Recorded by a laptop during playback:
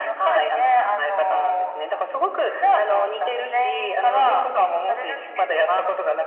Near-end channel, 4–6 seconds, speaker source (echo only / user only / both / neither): echo only